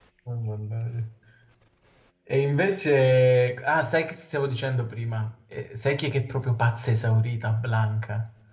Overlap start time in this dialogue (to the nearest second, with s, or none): none